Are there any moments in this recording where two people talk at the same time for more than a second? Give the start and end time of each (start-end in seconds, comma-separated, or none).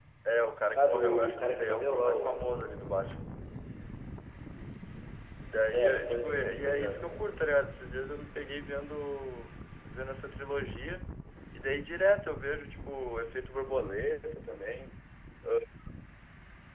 0.8-2.3, 5.7-7.0